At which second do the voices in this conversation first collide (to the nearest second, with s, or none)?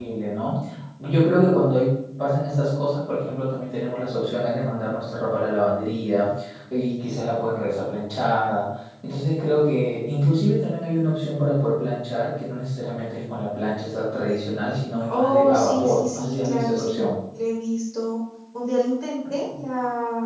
15 s